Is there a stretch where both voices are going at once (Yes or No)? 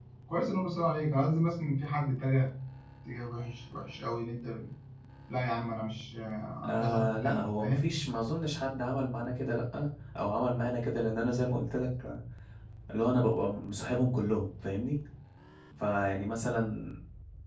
Yes